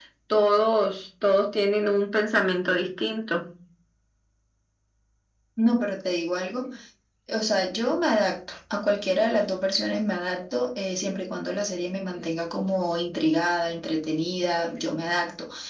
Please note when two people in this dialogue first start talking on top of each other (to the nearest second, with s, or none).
none